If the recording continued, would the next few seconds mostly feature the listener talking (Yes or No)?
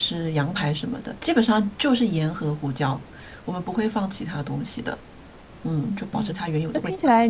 Yes